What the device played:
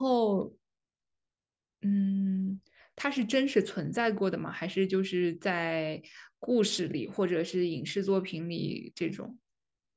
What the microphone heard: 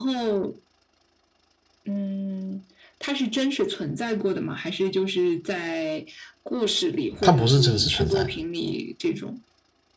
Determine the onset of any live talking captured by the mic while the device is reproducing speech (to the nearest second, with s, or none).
7 s